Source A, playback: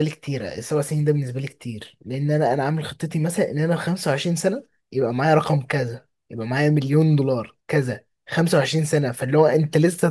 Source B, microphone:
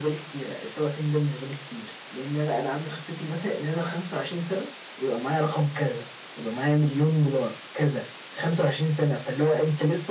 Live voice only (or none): none